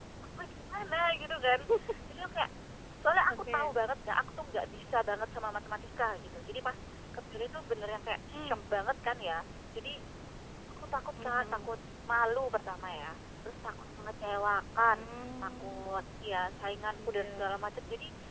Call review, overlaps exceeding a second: none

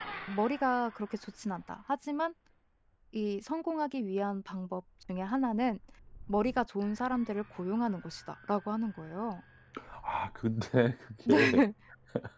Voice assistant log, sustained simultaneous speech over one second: none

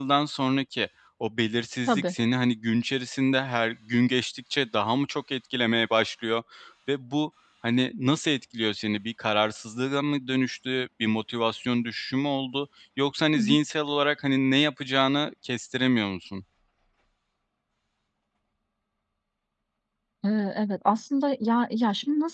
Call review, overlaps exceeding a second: none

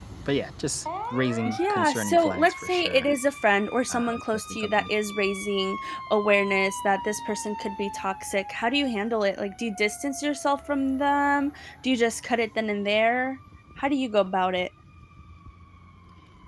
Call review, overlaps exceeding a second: present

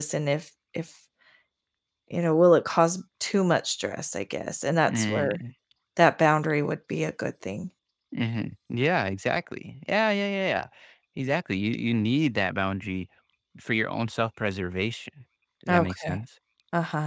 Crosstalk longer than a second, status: none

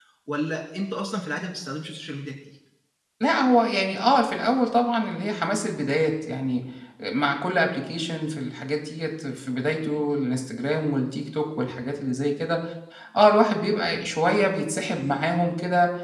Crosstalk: none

